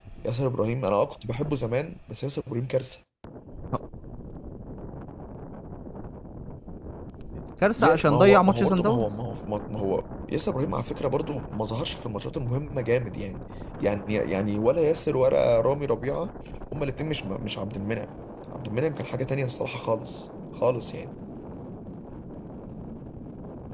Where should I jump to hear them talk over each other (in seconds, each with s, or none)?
7.8 s